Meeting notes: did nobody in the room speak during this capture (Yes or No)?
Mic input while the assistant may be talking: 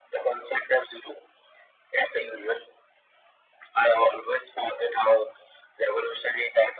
Yes